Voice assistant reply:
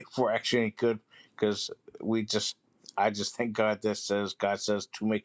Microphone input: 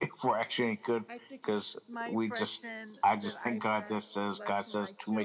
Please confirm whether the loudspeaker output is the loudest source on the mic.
Yes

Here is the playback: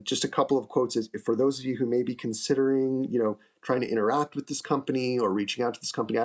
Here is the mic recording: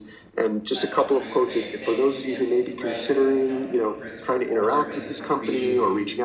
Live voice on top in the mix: No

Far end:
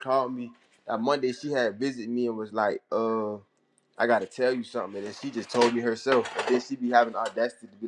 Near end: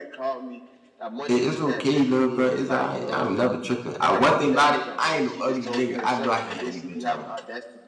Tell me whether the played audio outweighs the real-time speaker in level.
No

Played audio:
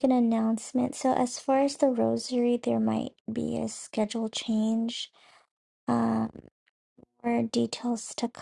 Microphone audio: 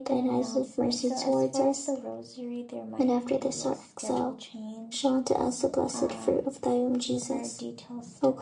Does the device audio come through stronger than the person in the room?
No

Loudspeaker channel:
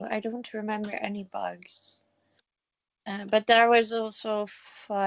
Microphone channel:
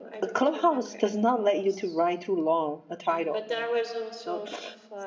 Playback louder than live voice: No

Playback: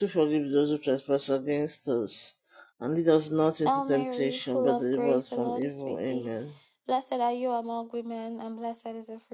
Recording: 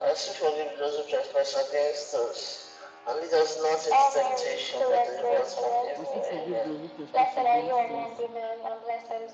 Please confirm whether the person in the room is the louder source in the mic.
No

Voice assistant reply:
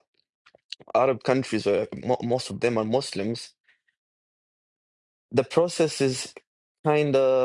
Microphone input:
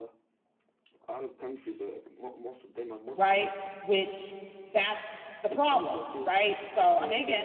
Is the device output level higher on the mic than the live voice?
No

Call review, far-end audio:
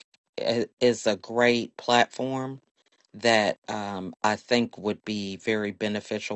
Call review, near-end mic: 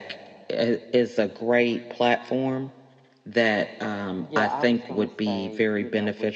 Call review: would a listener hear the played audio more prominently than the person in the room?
Yes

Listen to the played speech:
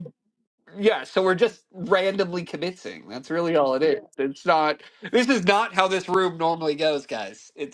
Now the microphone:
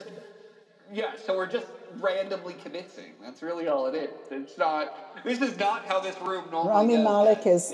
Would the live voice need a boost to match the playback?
No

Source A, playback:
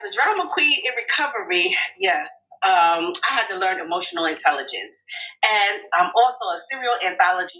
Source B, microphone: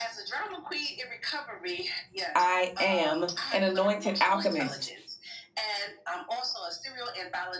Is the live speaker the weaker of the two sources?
No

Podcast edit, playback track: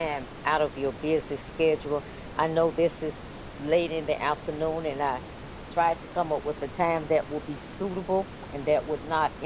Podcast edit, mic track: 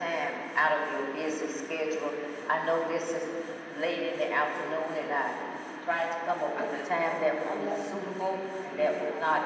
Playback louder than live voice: Yes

